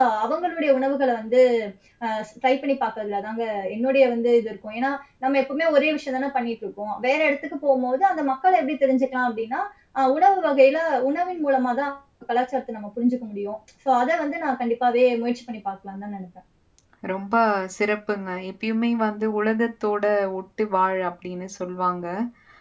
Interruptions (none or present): none